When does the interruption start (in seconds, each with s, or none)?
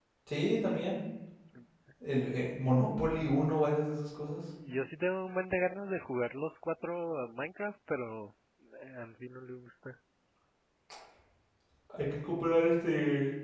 none